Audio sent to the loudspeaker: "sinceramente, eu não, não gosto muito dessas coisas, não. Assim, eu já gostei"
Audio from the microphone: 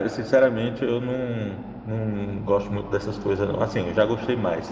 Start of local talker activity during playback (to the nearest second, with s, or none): none